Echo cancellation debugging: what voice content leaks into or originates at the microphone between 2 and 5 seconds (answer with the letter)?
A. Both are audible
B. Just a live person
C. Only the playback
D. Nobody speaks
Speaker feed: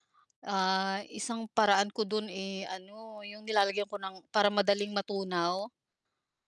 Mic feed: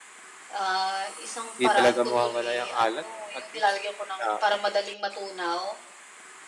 A